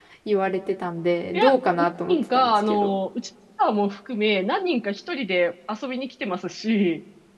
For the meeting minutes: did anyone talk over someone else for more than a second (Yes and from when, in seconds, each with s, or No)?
Yes, from 1.3 s